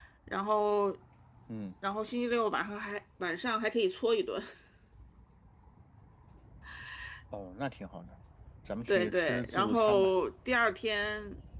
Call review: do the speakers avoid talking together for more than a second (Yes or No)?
No